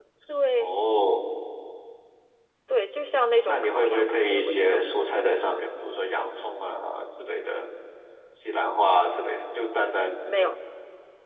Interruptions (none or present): present